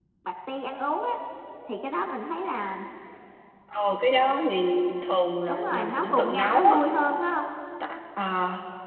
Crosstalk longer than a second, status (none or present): present